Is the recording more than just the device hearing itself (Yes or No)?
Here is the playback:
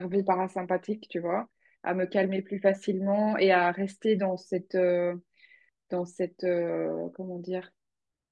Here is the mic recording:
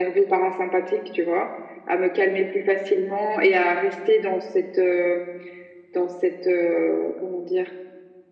No